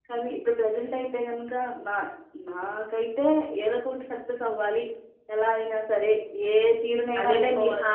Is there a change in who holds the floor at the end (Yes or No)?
Yes